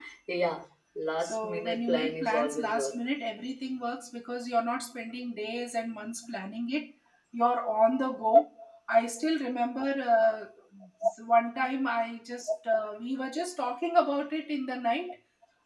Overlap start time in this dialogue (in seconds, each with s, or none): 1.2 s